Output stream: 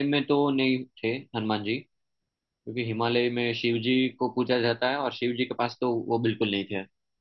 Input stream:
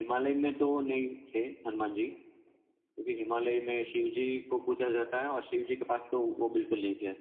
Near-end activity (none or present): none